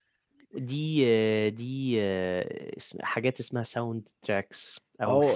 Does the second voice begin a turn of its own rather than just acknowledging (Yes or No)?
Yes